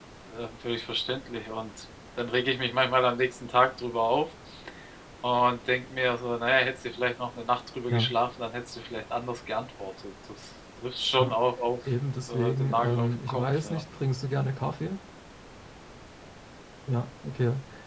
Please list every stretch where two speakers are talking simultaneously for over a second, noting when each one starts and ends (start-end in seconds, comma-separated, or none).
12.3-13.8